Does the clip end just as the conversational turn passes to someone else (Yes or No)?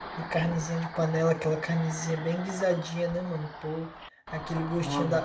No